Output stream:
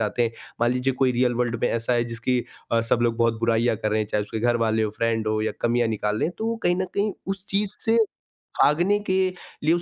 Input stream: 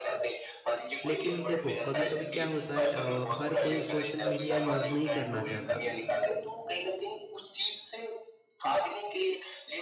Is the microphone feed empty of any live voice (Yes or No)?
No